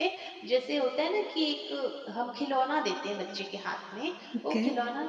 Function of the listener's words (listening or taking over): listening